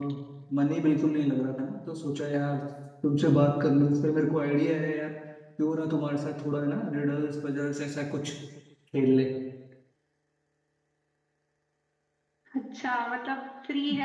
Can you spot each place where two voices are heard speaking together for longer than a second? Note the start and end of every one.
none

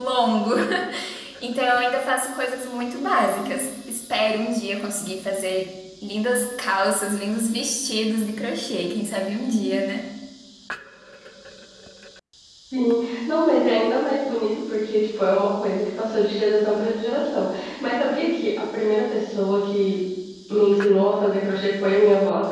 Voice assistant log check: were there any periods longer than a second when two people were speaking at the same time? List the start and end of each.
none

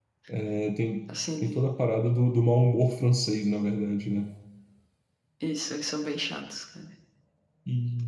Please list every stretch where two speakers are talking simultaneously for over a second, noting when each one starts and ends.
none

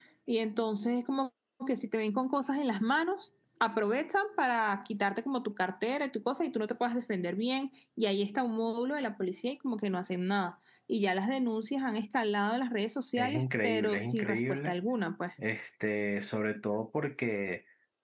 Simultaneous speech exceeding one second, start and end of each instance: 13.2-14.7

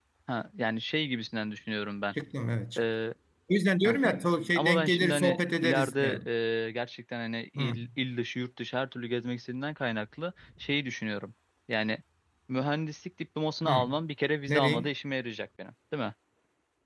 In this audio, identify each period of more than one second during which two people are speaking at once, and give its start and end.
4.6-6.2

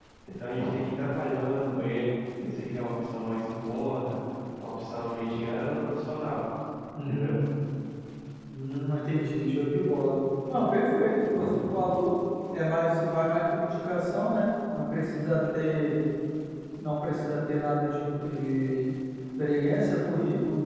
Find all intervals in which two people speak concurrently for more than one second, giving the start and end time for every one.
none

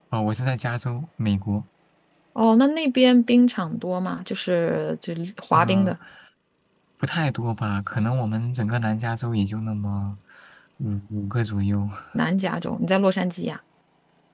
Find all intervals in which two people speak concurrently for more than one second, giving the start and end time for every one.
none

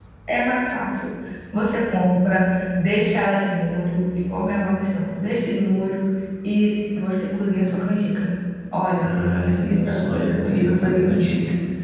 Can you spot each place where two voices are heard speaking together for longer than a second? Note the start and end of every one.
9.0-11.3

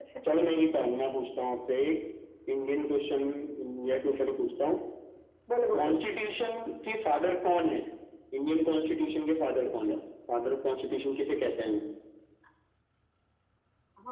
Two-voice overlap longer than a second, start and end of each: none

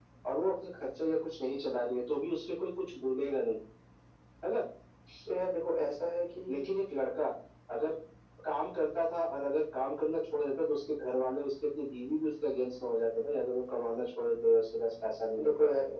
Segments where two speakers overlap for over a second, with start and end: none

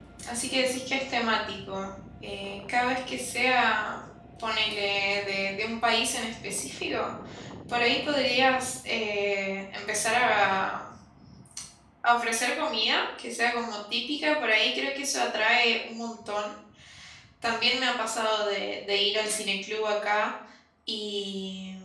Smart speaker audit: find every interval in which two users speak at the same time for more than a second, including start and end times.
none

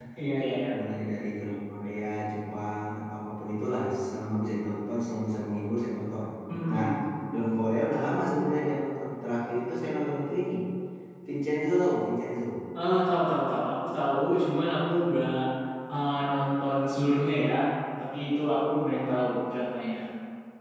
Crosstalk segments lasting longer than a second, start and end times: none

